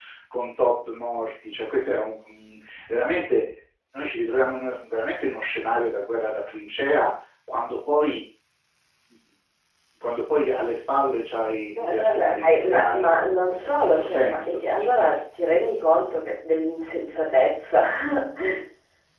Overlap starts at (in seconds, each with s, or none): 11.8 s